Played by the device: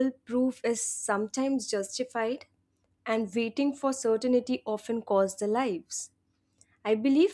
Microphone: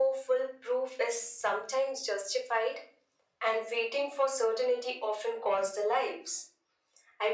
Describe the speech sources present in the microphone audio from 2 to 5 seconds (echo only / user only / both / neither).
echo only